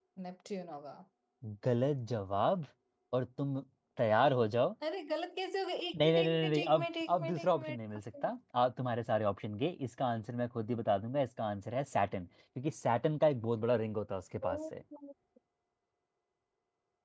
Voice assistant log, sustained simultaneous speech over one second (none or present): present